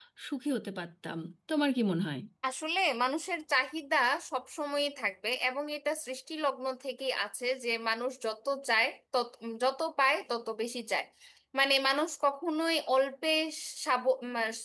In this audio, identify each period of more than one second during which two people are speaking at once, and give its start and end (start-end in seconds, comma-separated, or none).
none